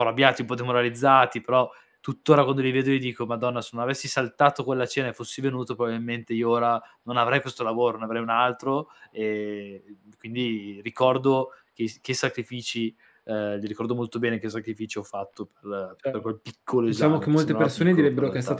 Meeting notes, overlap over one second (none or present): present